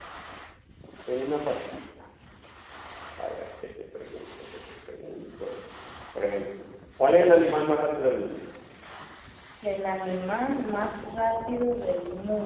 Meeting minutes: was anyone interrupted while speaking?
No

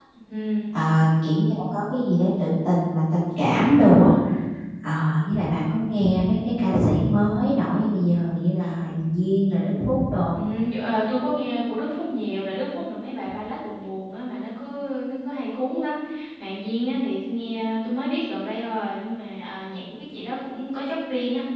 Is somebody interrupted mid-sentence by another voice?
No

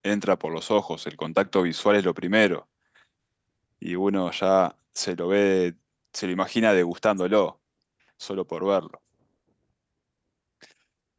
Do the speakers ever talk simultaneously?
No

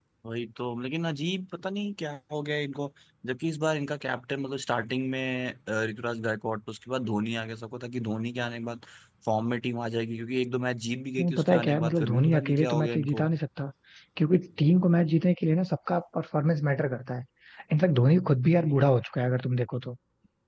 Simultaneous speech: Yes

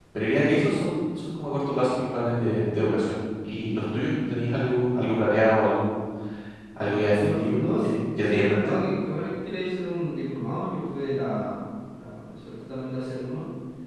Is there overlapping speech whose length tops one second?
Yes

